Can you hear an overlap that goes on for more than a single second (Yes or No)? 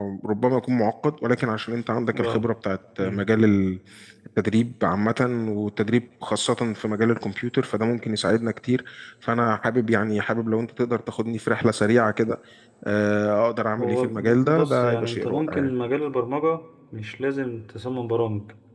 Yes